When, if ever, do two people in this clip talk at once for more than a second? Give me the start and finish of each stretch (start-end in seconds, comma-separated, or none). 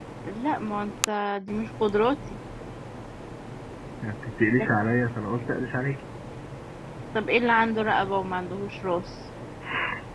none